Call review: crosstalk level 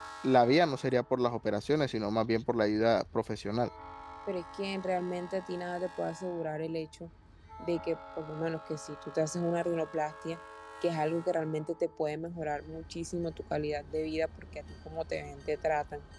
none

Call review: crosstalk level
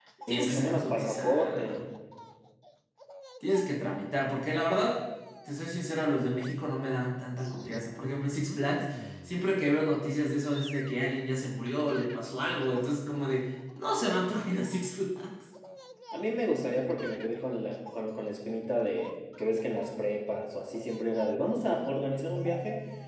present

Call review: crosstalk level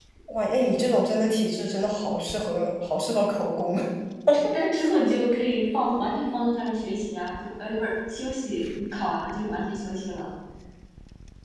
none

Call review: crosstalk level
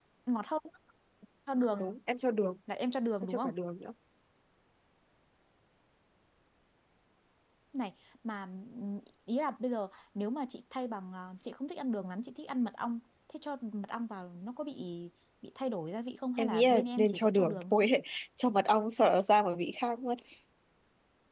present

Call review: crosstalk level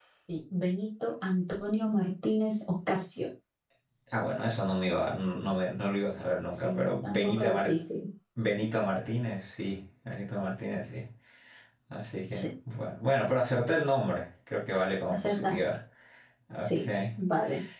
present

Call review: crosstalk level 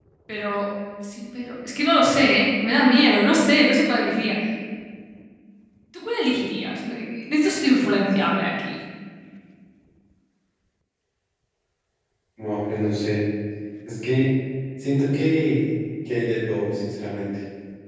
none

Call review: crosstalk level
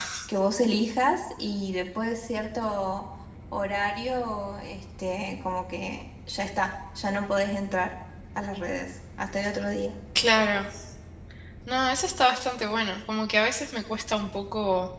none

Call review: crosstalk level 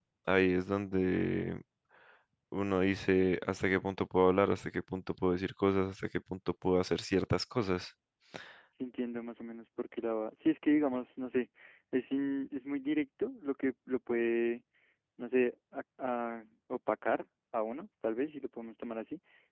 none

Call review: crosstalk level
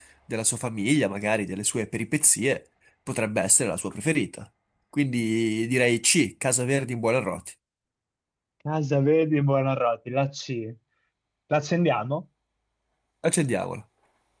none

